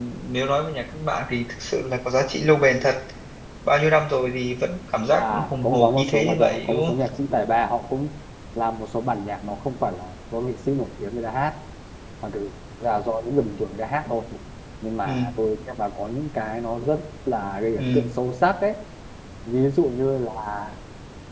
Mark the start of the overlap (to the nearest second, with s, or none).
5 s